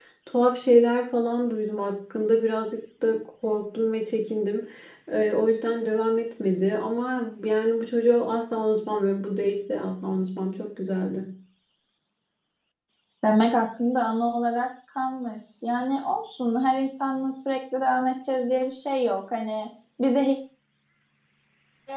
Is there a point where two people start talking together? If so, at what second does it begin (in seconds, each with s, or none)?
none